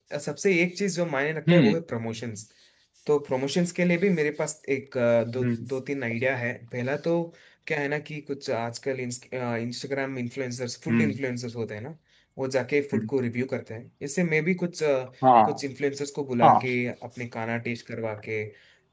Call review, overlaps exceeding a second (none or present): none